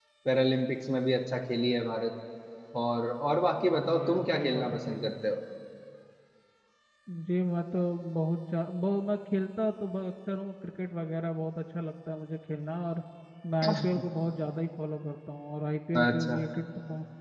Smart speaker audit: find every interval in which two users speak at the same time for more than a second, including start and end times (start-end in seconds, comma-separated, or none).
3.8-5.1